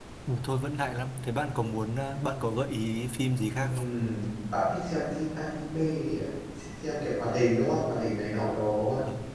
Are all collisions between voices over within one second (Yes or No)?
Yes